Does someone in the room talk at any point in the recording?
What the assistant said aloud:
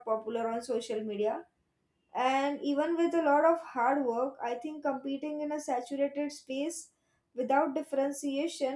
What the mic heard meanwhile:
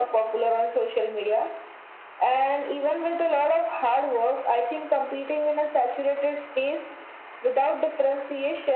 No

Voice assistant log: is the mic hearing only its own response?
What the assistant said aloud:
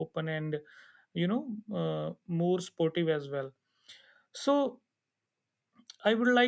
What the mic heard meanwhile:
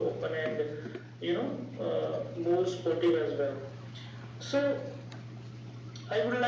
Yes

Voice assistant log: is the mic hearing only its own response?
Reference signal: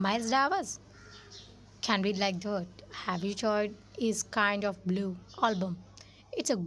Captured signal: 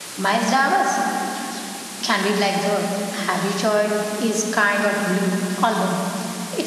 Yes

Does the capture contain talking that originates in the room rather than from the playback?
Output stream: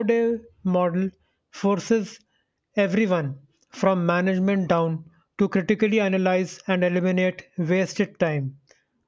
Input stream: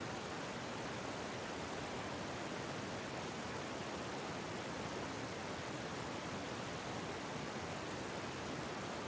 No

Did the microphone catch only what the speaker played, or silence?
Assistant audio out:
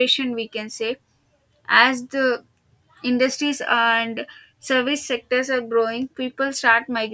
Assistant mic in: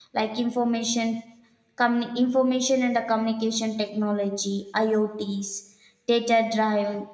No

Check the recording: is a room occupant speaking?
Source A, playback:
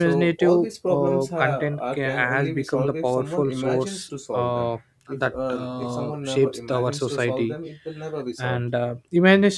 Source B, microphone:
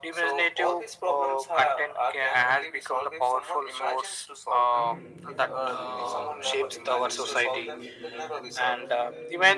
Yes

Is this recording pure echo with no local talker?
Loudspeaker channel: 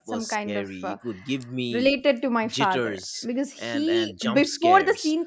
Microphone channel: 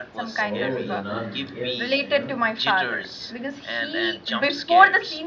No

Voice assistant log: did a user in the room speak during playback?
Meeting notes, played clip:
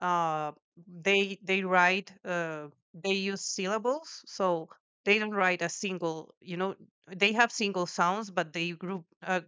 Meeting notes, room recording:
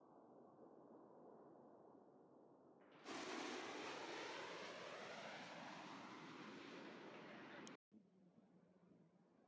No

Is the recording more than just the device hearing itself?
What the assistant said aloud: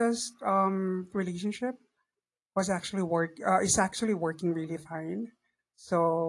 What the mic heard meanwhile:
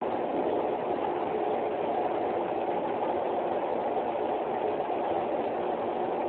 No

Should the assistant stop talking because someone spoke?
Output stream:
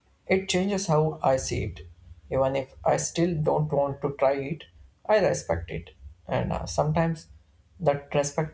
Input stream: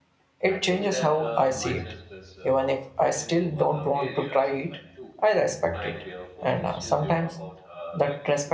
Yes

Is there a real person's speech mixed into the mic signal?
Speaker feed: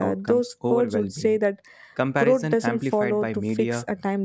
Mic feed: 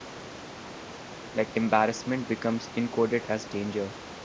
Yes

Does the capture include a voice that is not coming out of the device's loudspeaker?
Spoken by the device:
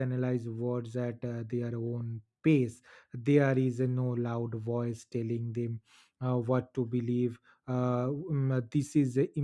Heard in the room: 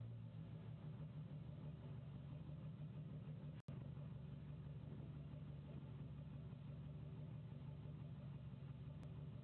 No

